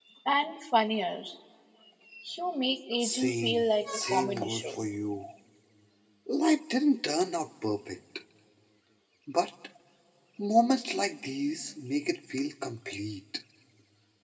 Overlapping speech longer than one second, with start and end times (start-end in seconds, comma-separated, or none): 3.0-4.8